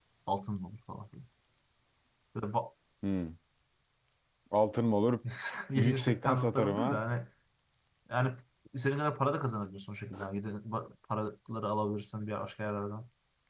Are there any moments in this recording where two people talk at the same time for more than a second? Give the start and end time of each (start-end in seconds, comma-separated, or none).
5.8-7.0